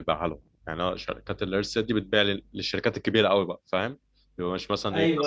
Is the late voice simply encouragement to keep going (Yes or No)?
No